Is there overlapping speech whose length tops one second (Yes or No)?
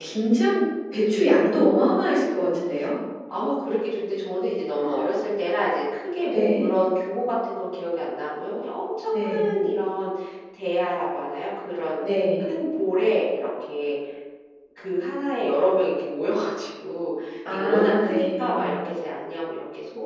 Yes